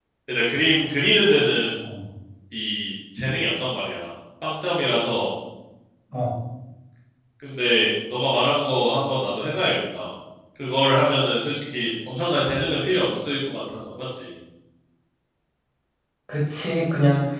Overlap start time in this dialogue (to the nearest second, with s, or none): none